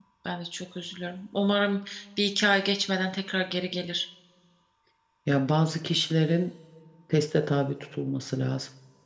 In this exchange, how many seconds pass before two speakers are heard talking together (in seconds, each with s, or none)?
none